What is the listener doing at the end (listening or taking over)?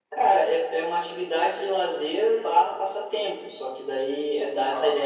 listening